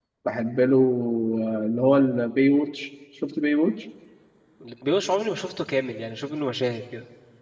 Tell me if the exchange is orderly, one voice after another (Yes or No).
Yes